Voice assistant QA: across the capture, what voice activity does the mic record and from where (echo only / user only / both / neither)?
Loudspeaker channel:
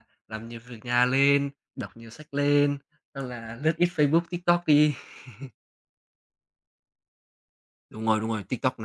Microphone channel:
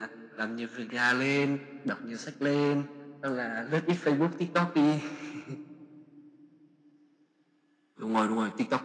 echo only